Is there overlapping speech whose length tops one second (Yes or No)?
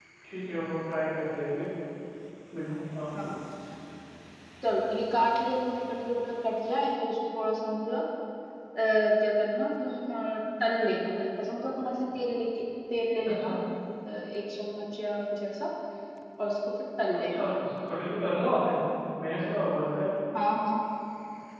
No